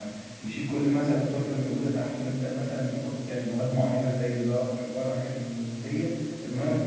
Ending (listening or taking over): taking over